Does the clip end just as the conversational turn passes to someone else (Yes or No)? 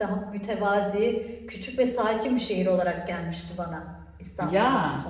Yes